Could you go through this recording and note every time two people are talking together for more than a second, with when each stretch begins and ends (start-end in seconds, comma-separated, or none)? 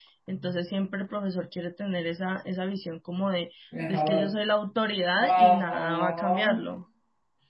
5.2-6.5